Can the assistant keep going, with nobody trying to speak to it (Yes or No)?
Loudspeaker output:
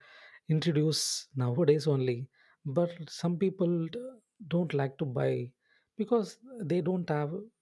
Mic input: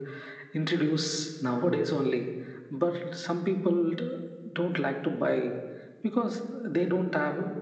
Yes